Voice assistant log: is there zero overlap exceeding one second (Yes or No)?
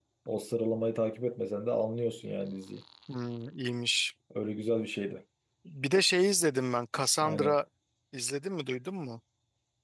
Yes